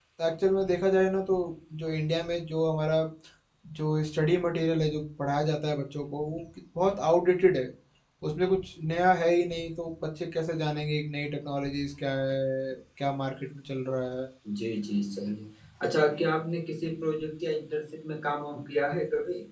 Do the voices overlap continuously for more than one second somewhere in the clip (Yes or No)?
No